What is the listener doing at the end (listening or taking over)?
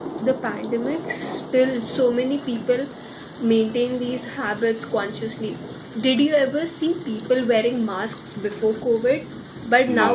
listening